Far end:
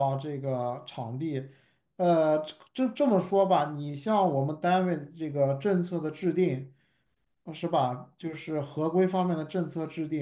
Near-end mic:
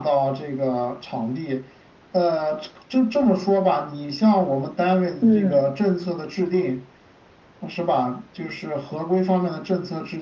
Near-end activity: present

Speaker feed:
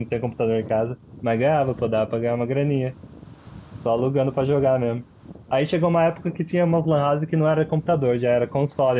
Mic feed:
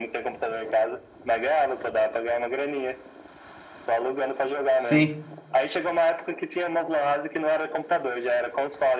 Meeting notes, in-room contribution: present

